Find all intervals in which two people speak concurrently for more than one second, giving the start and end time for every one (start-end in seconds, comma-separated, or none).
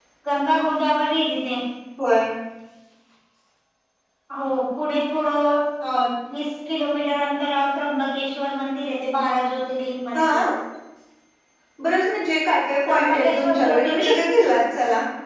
12.9-14.2